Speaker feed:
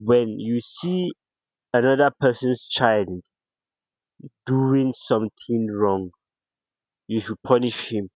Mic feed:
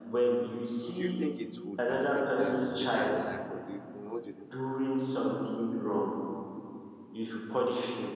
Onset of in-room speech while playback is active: 0.9 s

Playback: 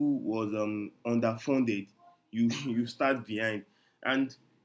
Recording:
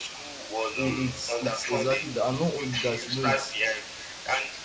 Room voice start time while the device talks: 0.7 s

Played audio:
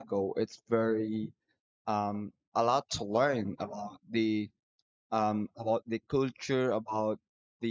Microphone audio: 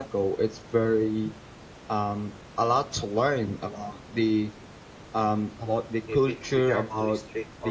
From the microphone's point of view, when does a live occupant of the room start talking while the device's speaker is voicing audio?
6.1 s

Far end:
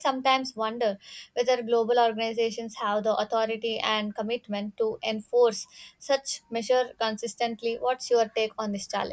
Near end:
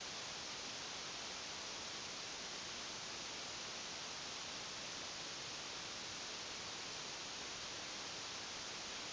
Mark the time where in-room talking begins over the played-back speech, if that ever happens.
none

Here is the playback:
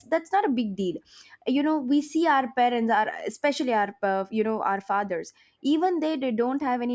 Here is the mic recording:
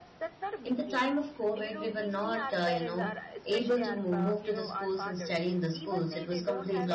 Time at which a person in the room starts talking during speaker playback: 0.6 s

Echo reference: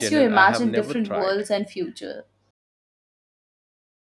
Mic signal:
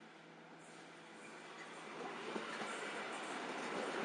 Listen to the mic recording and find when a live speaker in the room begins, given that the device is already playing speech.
none

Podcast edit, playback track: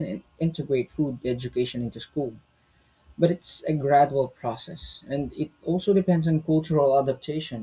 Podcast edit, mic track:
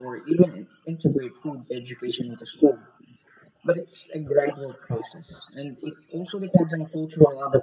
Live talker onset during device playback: none

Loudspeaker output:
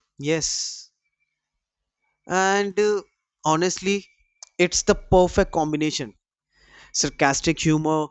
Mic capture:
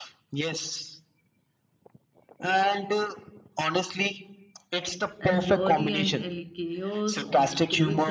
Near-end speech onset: 5.2 s

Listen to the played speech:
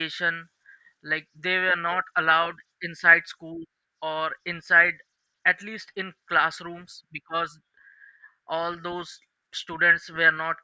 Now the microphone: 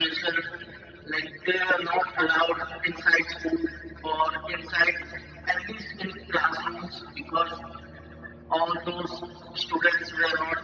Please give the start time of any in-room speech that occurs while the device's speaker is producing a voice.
none

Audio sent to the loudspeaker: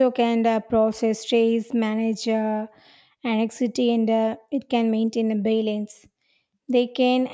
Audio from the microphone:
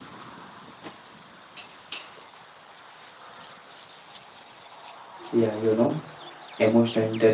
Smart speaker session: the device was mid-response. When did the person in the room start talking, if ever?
5.3 s

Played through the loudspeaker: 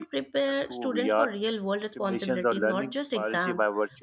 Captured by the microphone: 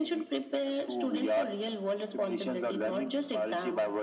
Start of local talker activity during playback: none

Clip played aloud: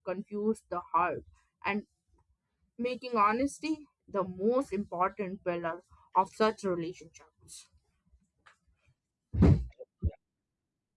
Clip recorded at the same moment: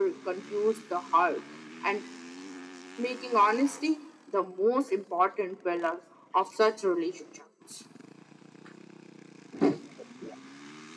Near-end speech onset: none

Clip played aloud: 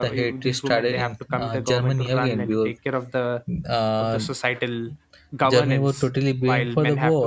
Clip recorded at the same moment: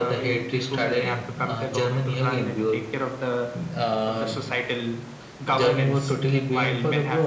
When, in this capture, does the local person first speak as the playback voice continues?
none

